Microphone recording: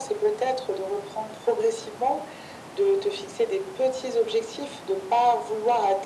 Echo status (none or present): present